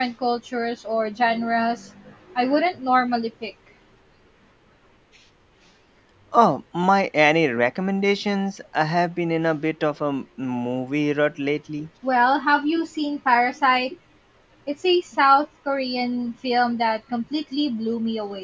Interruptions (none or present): none